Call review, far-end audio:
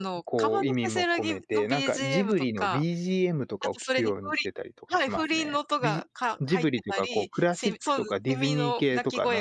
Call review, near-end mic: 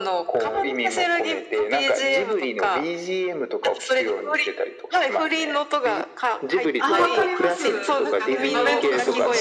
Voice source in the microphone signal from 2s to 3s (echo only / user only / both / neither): echo only